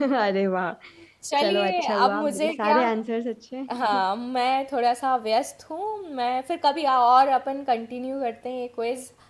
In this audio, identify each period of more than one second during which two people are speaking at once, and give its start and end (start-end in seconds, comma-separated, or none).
1.4-2.8